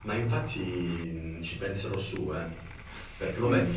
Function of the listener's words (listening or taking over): listening